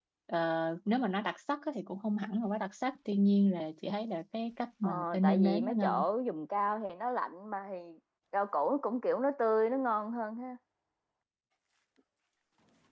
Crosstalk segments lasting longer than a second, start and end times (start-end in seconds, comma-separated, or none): 4.8-6.0